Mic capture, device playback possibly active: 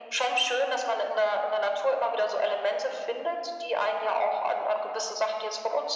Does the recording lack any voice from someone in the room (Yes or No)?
Yes